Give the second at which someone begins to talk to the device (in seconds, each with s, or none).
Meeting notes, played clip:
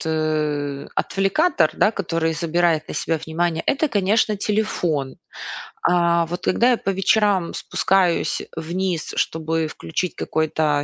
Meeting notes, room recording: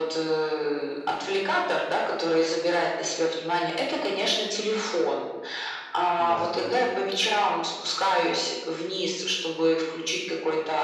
6.2 s